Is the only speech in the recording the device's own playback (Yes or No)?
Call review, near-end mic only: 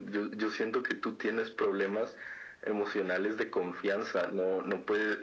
Yes